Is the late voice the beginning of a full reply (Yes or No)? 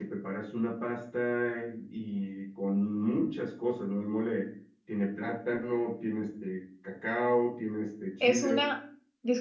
Yes